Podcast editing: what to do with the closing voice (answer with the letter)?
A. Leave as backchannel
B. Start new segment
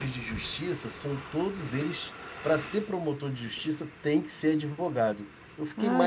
B